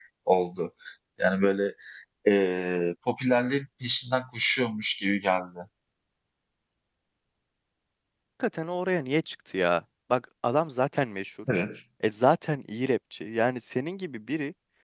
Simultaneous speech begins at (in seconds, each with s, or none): none